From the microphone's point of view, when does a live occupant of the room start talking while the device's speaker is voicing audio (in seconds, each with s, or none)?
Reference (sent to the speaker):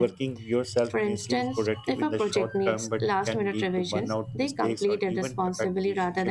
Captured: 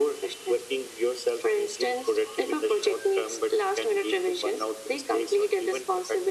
none